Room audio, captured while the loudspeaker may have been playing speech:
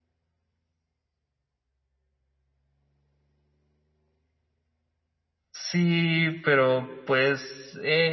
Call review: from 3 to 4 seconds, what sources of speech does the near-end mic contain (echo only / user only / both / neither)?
neither